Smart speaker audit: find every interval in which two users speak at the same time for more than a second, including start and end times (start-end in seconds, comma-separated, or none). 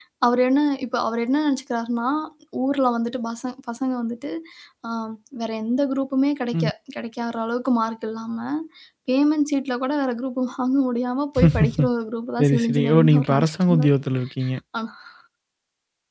12.4-13.9